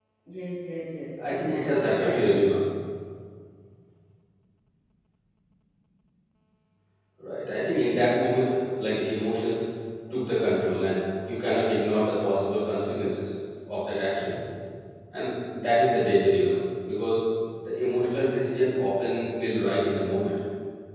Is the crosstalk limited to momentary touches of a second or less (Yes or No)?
No